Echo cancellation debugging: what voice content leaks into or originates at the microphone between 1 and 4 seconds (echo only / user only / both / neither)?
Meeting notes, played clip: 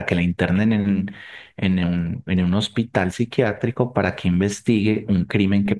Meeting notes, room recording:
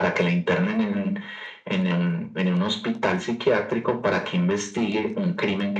echo only